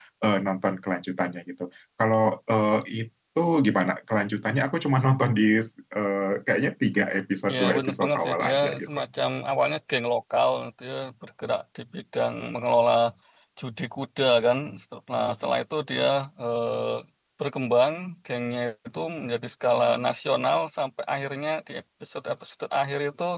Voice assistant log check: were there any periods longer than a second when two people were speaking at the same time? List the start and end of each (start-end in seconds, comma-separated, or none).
7.5-8.9